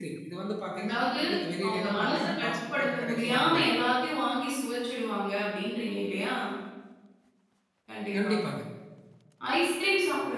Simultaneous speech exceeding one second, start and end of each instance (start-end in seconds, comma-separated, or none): 1.6-3.7